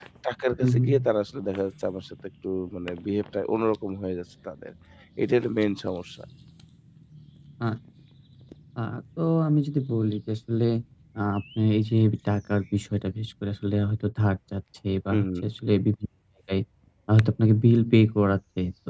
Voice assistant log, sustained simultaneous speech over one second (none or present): none